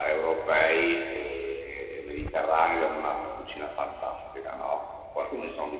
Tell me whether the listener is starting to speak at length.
No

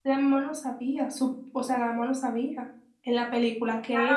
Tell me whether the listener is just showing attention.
No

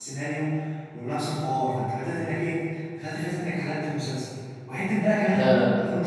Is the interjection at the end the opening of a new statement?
No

